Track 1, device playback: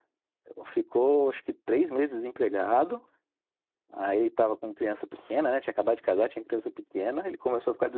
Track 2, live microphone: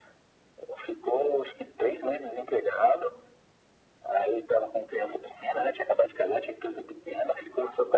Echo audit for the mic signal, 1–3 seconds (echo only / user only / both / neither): echo only